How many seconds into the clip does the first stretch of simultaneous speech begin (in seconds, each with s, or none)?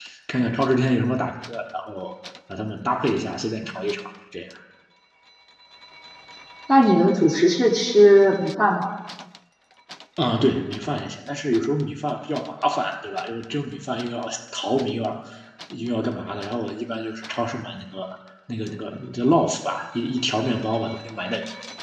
none